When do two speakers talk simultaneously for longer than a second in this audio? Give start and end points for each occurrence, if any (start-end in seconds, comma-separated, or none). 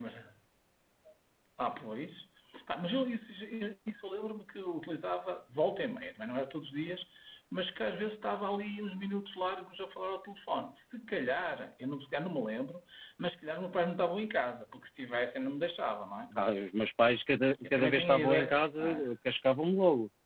17.6-19.1